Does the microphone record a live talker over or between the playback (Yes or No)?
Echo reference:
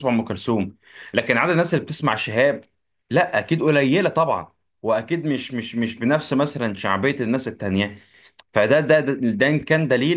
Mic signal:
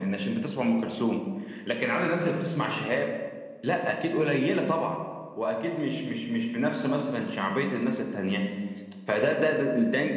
No